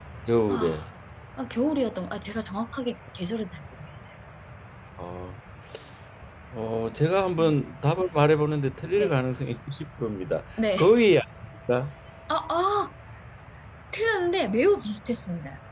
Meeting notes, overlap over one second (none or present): none